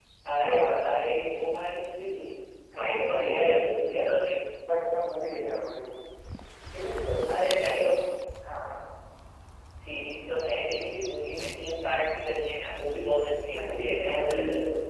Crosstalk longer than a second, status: present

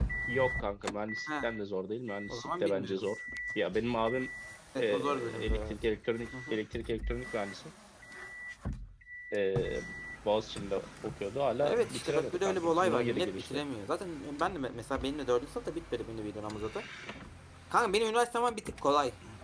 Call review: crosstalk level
present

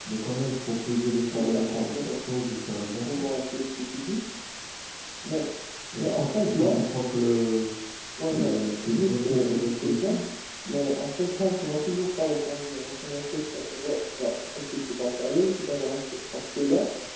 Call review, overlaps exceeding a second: present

